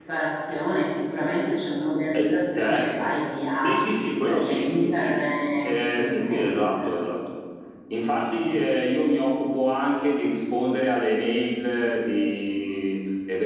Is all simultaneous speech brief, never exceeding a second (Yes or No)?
No